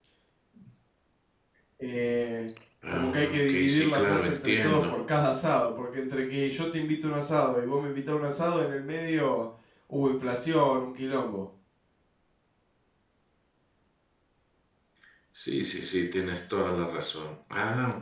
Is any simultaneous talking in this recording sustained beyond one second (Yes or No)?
Yes